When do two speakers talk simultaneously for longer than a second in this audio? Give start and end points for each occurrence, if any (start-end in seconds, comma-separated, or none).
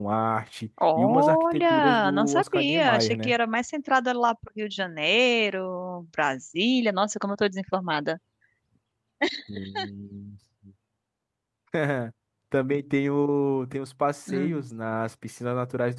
1.0-3.3